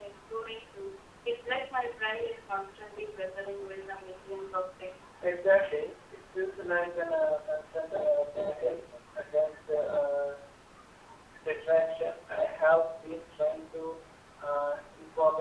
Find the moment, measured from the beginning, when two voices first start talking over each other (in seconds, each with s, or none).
none